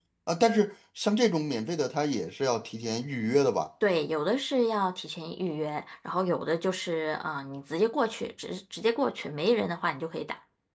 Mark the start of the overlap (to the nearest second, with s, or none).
none